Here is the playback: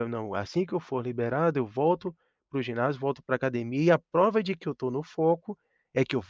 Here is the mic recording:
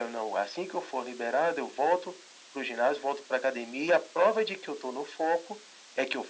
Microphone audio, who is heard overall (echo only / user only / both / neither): echo only